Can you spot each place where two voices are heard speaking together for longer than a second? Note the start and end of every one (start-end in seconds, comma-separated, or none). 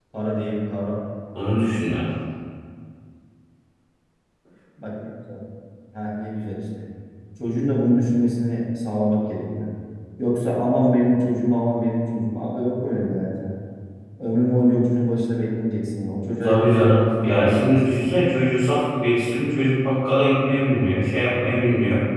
16.4-18.1